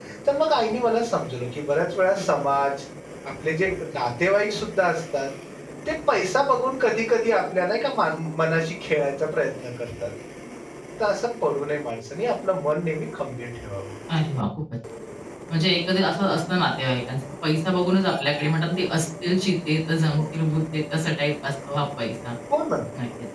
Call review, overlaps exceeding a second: none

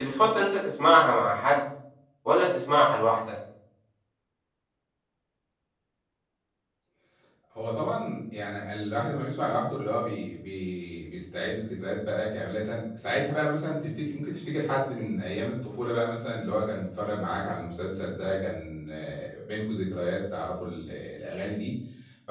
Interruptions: none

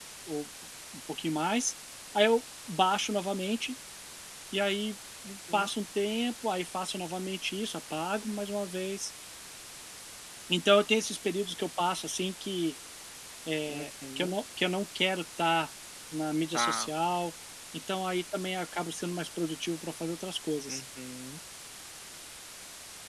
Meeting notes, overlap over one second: none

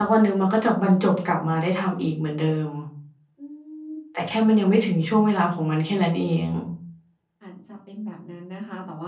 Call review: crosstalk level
none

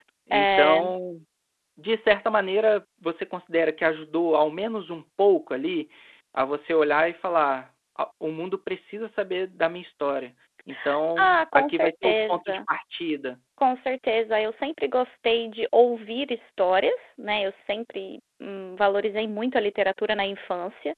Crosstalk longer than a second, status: present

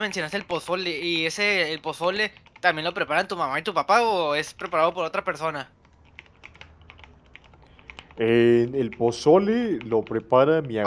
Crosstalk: none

